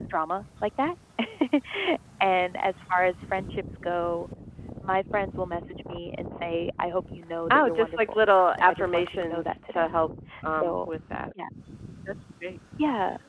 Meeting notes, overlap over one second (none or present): present